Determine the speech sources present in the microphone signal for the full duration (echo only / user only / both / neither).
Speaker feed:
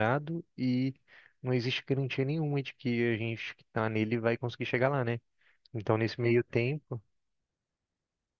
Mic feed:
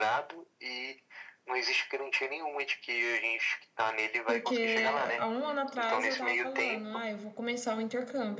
both